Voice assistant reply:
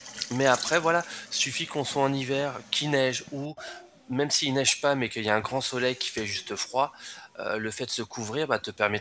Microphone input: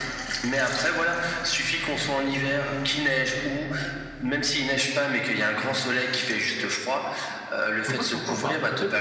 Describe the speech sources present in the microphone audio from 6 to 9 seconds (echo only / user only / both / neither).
both